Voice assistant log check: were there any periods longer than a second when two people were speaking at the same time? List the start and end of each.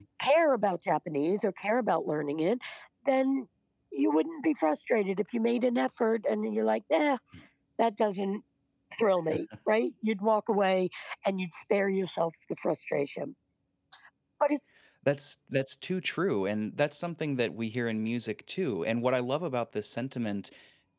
none

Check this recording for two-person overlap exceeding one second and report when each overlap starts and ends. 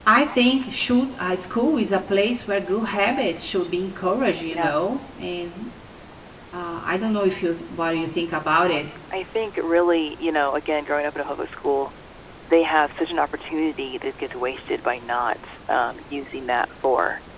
none

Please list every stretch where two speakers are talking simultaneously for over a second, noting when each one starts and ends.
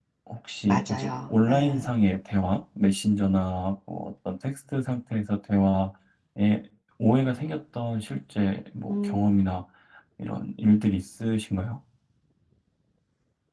0.7-1.9

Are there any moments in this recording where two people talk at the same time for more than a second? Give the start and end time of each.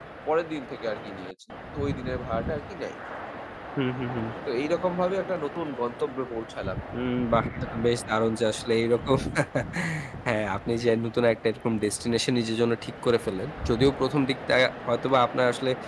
none

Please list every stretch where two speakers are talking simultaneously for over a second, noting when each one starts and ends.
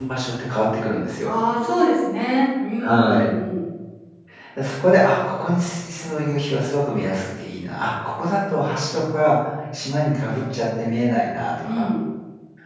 none

